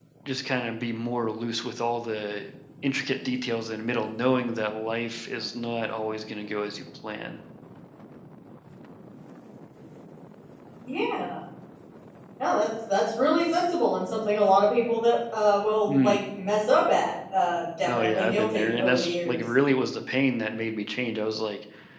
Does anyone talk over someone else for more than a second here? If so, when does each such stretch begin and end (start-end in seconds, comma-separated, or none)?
17.9-19.4